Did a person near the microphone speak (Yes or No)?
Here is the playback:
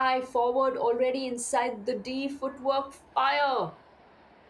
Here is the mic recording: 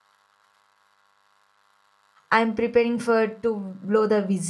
Yes